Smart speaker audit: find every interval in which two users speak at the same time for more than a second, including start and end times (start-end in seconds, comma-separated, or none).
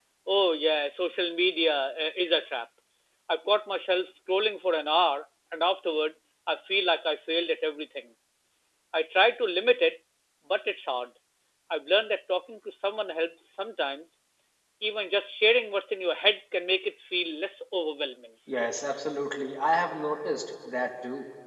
none